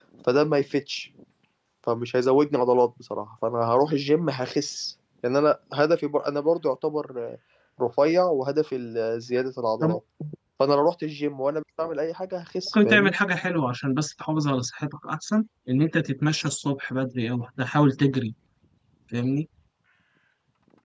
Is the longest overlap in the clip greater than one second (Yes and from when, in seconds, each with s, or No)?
No